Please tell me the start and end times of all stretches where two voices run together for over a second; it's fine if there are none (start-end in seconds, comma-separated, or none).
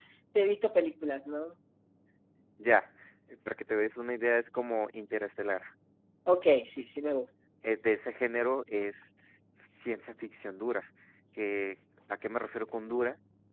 none